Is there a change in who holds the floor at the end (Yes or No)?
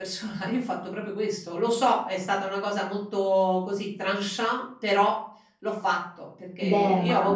No